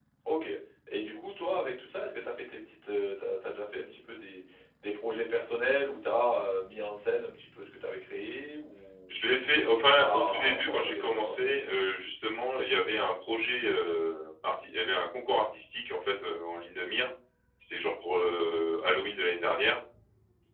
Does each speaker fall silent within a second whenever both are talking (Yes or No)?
No